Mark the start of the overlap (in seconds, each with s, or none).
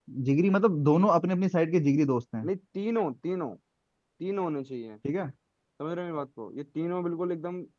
none